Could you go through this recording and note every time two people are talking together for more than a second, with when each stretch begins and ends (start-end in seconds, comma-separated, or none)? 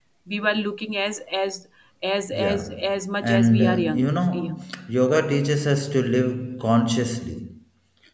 3.2-4.5